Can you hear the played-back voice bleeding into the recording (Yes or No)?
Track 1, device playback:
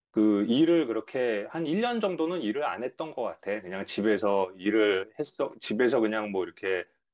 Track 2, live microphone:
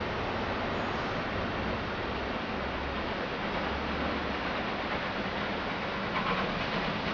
No